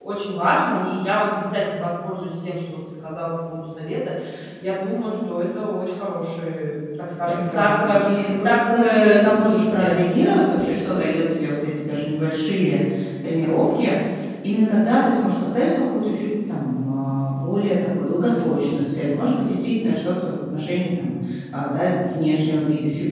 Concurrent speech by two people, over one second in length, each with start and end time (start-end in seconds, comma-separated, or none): 7.2-10.0